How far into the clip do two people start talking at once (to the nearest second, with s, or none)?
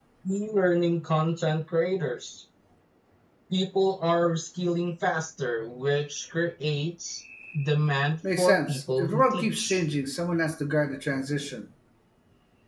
8 s